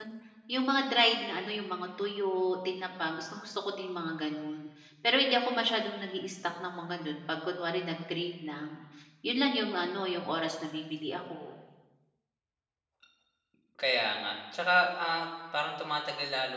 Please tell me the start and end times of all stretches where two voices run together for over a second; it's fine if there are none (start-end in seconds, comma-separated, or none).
none